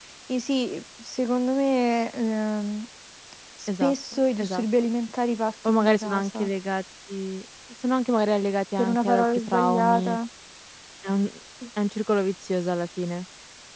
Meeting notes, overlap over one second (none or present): present